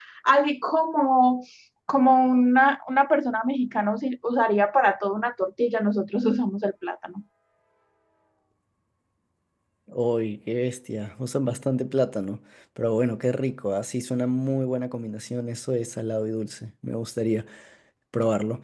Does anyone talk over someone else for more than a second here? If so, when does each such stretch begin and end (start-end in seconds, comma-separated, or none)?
none